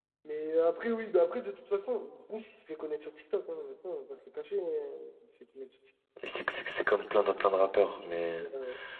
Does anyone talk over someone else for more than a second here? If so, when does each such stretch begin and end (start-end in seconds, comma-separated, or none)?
none